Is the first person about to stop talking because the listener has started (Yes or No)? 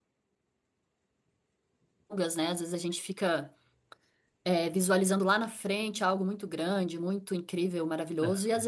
No